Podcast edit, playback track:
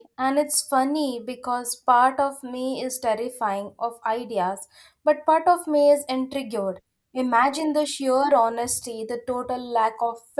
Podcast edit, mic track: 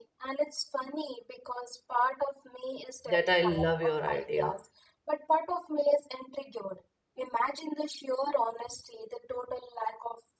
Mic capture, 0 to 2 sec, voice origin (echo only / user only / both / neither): echo only